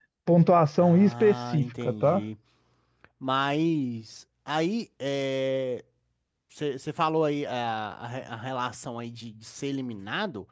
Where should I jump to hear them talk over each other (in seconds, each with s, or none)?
0.8 s